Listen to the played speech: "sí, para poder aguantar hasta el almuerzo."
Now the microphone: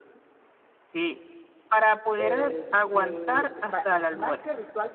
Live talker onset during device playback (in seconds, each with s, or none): 2.1 s